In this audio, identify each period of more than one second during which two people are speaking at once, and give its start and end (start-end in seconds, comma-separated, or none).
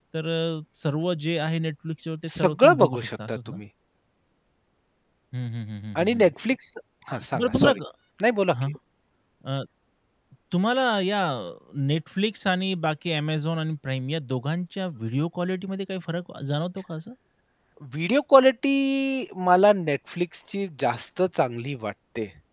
2.3-3.6